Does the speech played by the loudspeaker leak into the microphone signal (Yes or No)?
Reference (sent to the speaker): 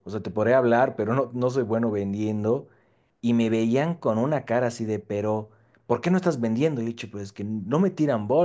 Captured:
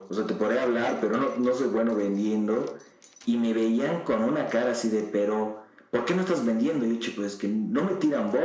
Yes